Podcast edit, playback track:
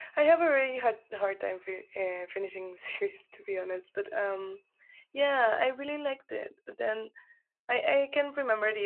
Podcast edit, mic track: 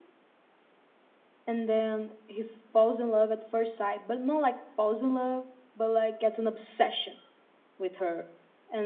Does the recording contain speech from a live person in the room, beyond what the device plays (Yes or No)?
Yes